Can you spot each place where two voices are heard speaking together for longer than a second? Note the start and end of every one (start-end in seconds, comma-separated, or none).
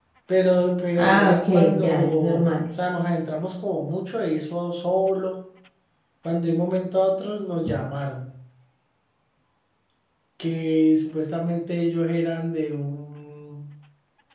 1.0-2.5